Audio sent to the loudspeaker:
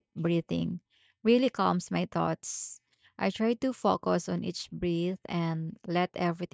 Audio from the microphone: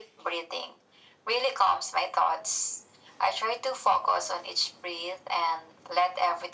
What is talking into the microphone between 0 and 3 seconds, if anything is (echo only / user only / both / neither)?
echo only